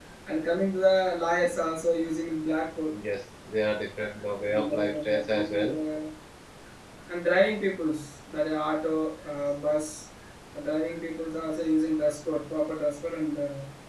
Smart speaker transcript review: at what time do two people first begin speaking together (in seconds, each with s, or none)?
4.5 s